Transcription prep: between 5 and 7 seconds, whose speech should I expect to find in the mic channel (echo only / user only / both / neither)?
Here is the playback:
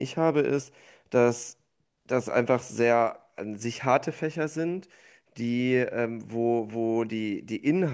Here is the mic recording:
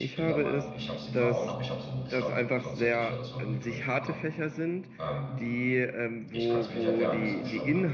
both